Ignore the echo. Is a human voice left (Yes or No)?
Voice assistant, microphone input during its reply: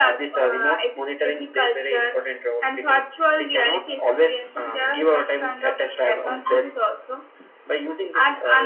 No